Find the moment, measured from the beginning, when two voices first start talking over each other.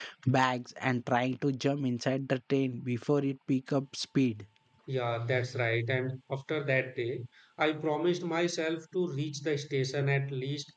none

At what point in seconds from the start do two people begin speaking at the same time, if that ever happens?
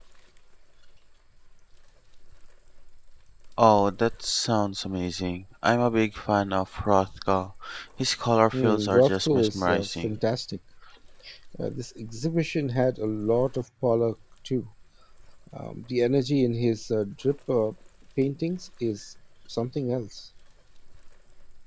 8.5 s

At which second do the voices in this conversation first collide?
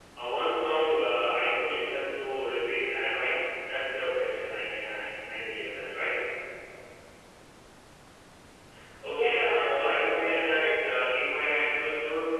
9.0 s

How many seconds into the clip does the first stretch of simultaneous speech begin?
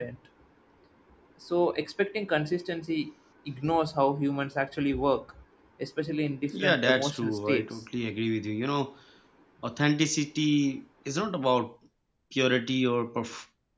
6.5 s

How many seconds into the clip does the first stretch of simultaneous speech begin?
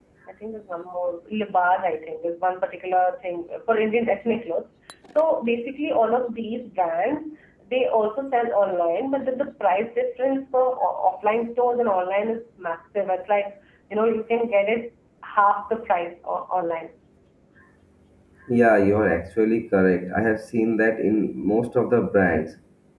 none

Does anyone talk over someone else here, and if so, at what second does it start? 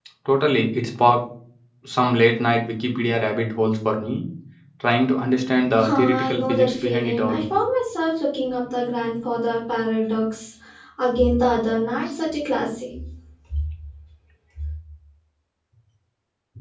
5.8 s

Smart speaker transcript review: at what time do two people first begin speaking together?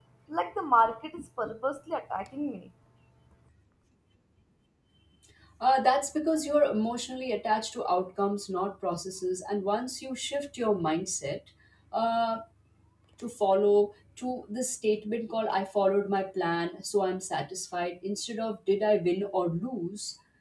none

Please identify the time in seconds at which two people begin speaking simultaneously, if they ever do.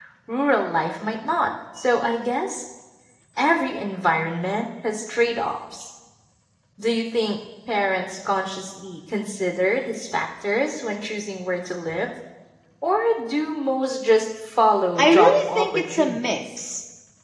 15.0 s

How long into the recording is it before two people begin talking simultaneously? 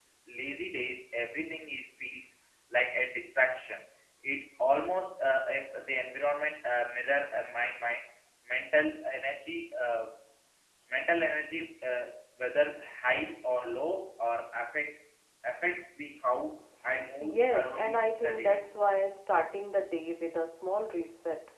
17.2 s

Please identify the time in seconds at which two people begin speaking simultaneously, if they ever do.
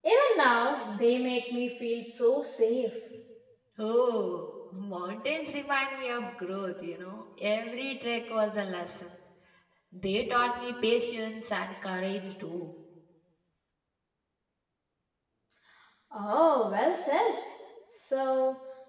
none

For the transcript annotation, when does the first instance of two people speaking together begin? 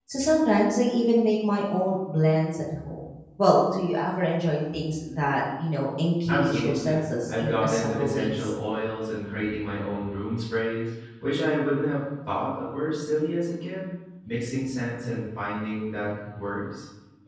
6.3 s

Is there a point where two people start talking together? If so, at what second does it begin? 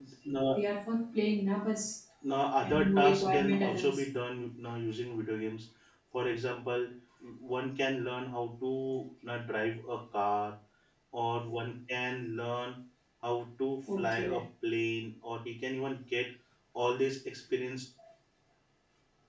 2.6 s

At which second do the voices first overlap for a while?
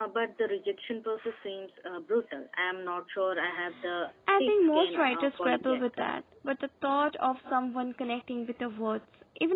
4.4 s

